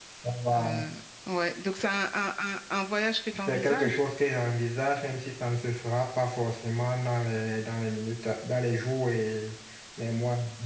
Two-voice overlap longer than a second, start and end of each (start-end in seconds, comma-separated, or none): none